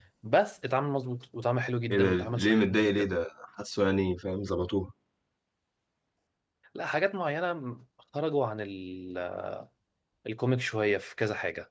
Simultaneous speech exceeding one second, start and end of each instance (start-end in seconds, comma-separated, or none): 1.9-3.1